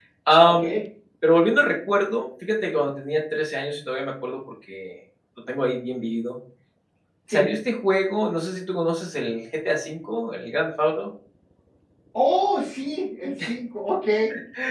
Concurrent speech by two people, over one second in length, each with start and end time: none

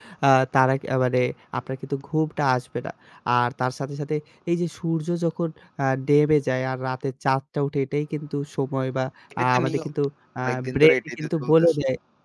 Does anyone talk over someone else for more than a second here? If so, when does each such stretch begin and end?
10.4-11.8

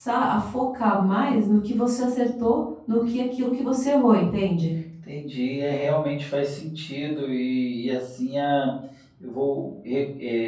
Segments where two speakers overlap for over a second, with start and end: none

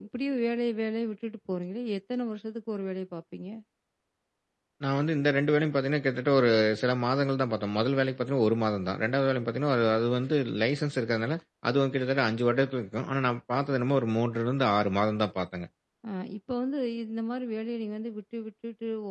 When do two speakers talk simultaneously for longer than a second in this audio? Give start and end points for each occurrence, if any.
none

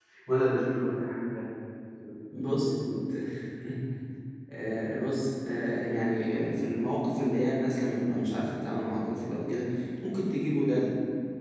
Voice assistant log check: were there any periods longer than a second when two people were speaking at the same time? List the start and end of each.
none

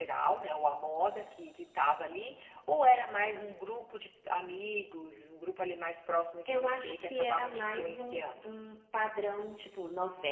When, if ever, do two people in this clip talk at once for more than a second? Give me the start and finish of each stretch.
6.5-8.5

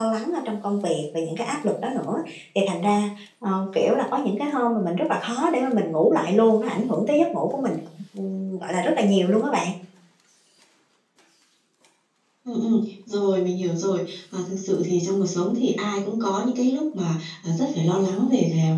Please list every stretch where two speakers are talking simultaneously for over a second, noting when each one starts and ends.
none

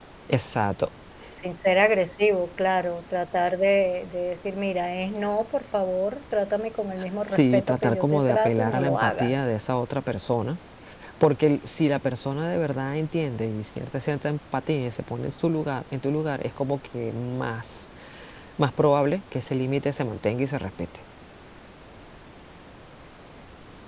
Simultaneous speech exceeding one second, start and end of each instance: 7.2-9.5

